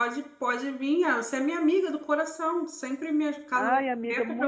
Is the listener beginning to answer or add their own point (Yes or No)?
Yes